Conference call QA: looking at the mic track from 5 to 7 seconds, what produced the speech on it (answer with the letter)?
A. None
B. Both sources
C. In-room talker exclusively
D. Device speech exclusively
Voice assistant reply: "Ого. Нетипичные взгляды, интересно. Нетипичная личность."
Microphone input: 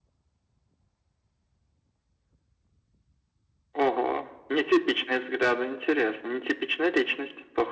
D